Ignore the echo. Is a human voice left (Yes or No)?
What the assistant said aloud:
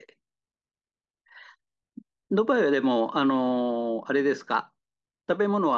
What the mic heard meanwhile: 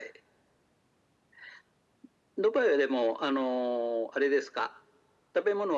No